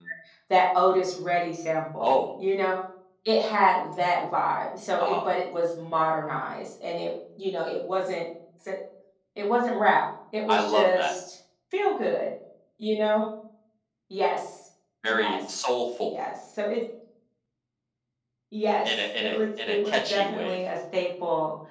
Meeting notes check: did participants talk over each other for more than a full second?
Yes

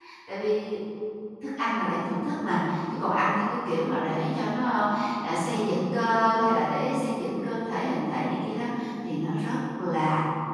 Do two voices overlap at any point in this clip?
No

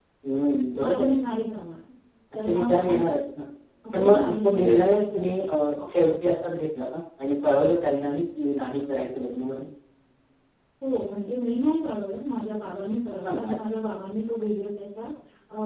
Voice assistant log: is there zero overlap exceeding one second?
No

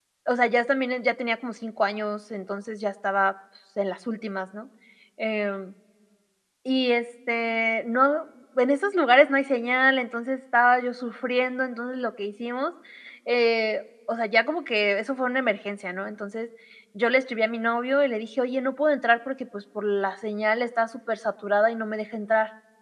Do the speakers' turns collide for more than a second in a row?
No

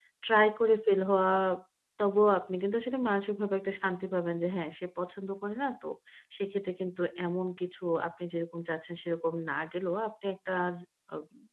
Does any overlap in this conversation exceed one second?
No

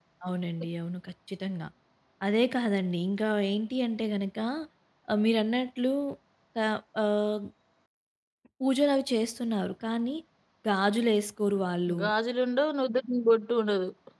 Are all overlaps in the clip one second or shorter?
Yes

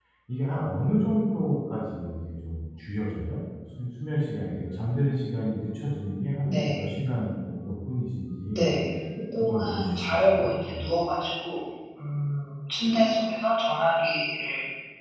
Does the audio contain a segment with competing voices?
Yes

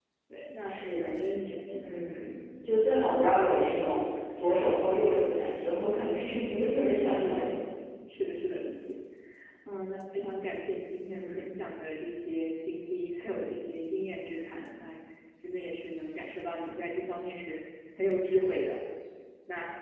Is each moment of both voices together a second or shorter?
Yes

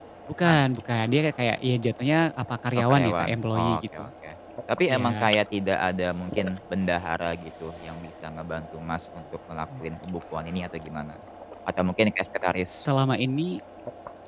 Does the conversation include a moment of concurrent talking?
Yes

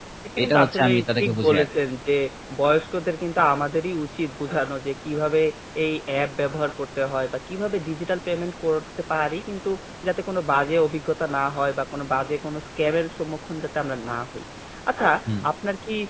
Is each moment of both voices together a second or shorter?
No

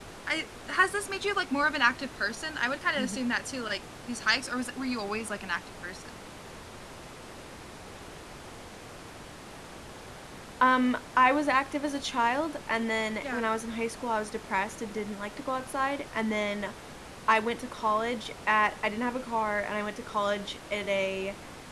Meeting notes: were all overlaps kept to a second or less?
Yes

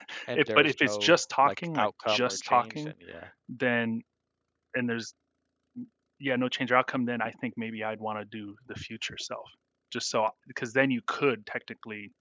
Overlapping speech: Yes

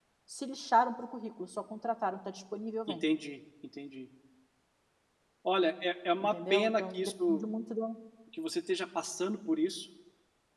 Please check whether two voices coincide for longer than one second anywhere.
Yes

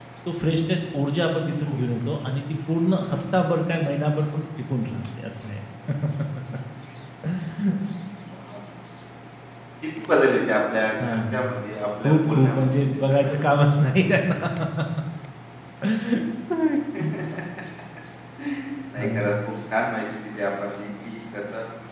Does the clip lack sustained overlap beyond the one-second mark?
No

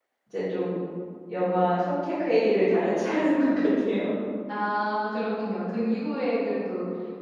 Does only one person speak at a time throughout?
Yes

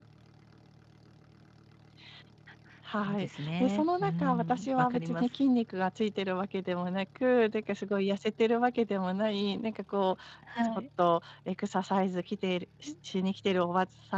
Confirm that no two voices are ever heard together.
No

